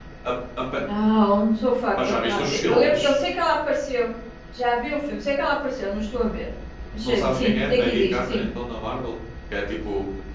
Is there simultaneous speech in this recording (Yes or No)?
Yes